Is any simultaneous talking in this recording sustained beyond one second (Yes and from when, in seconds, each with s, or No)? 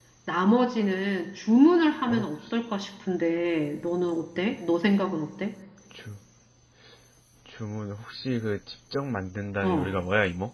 No